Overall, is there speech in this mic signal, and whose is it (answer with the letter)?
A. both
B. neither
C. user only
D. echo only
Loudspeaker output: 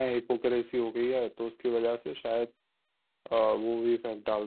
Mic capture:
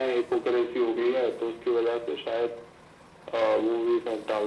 D